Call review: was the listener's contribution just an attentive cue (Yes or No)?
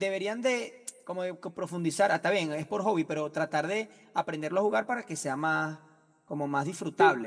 No